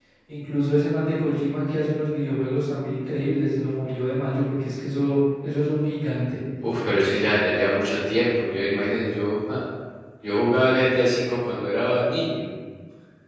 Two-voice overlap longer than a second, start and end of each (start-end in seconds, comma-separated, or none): none